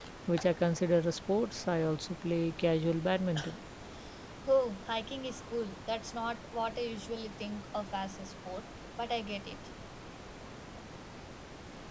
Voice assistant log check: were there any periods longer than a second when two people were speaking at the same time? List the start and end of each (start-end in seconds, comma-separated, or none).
none